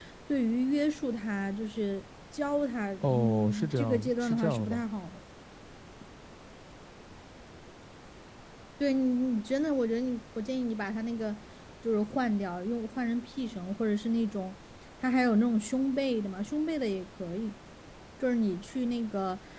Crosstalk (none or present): present